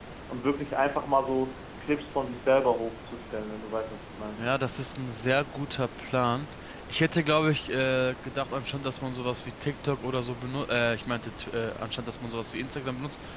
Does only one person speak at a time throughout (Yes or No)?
Yes